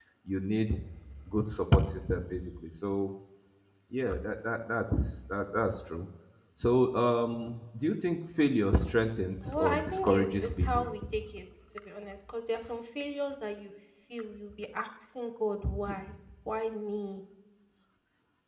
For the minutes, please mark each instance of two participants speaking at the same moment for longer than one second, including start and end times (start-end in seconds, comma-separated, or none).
9.4-10.9